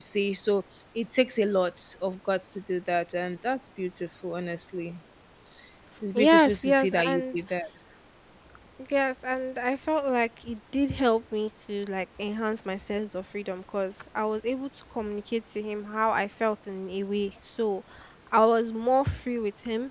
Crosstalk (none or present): present